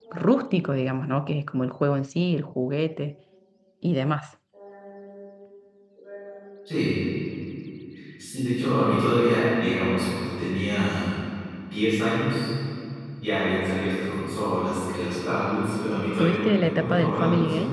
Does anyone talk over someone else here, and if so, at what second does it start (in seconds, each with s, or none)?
16.2 s